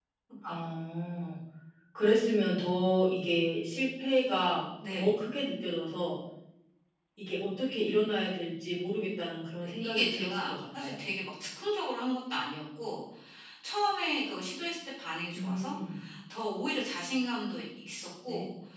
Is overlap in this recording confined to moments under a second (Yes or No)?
No